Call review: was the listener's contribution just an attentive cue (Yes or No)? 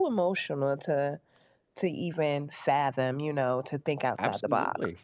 No